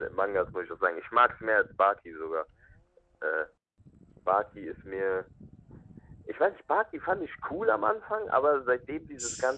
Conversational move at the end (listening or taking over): listening